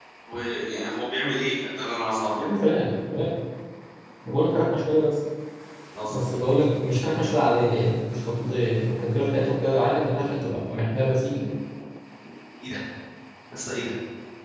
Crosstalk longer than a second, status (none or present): none